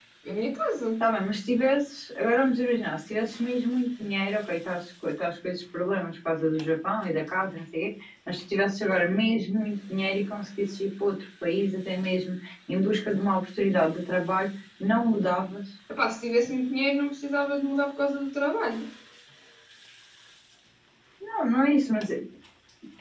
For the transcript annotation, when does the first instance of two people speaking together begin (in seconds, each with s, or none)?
none